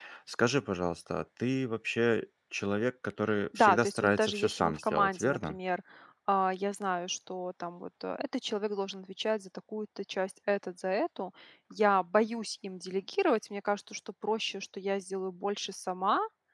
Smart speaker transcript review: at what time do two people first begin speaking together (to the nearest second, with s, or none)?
4 s